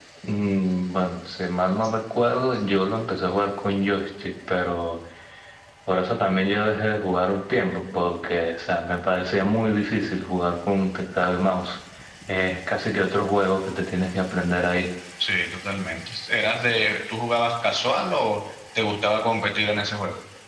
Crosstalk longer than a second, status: none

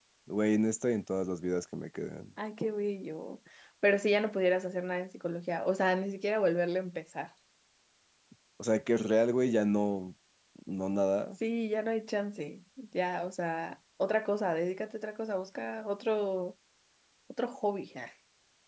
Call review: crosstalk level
none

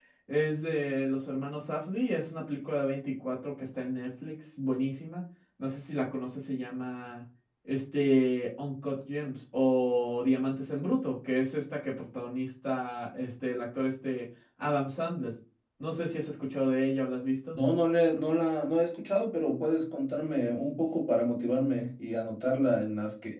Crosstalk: none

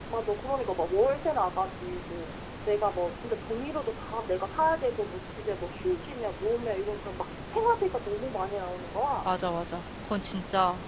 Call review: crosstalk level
none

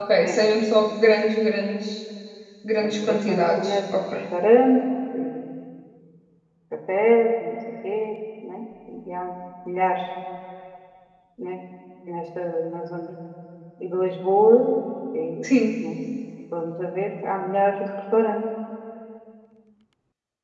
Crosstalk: present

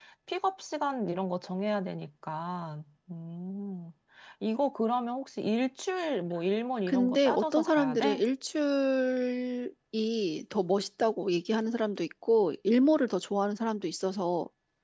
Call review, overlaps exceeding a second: present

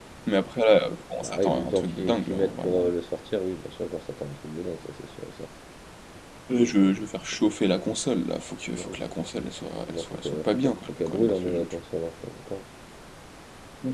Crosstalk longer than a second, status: present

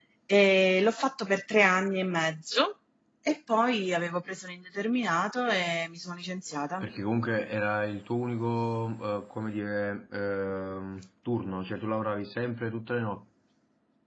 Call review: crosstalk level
none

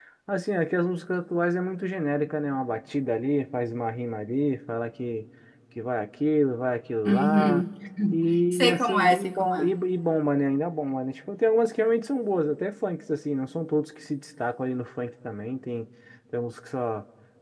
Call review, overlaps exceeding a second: present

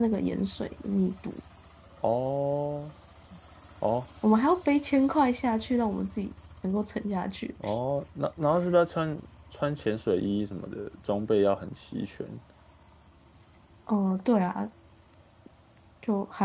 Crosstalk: none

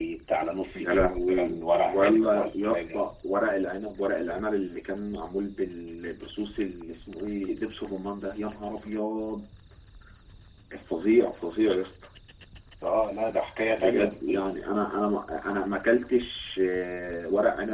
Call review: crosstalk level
present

